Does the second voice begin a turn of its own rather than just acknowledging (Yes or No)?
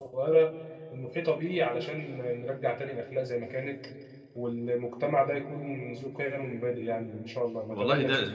Yes